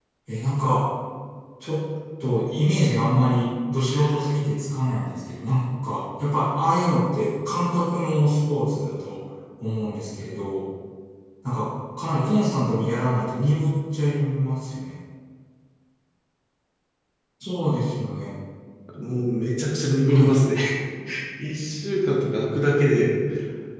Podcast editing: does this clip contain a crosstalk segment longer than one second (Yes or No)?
No